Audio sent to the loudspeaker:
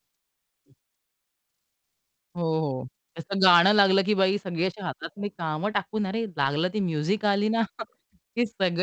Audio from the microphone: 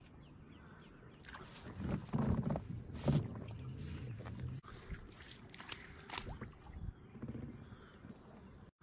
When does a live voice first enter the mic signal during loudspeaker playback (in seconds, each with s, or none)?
none